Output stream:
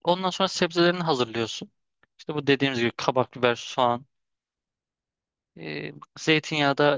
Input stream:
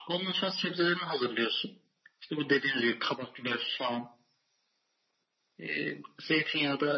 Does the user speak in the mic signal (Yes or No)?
No